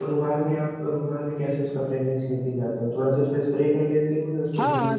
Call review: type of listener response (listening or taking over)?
taking over